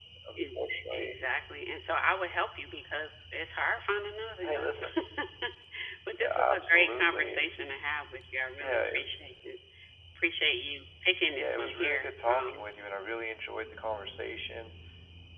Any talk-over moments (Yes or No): Yes